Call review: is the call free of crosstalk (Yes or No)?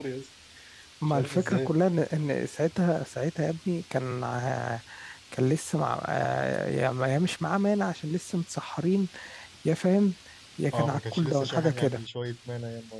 No